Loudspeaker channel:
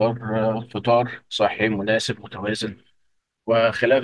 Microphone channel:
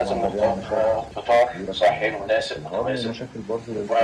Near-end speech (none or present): present